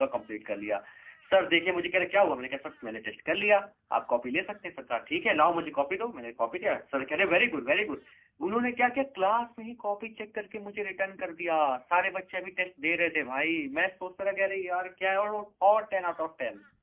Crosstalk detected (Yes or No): No